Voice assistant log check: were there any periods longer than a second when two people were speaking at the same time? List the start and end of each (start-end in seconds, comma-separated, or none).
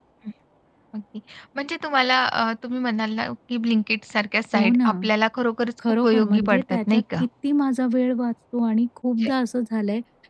6.0-7.2